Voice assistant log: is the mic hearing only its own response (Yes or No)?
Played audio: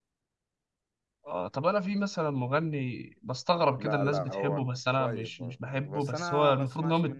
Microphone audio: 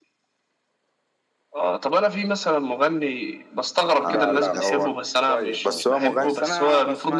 No